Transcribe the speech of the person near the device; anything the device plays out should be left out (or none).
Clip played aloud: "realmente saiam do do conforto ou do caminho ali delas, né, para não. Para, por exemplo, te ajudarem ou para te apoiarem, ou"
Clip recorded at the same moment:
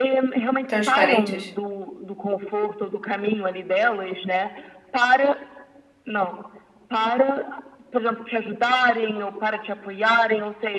Transparentes?